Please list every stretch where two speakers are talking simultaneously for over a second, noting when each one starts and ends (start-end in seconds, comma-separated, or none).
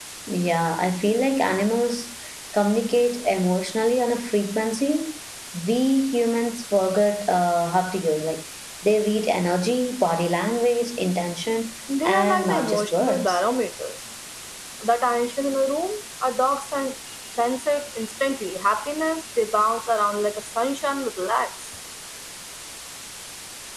12.0-13.4